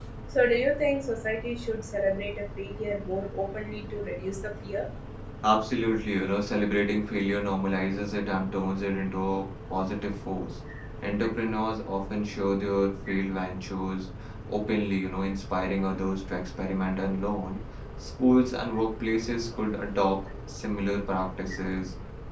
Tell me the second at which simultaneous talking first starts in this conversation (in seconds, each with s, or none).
none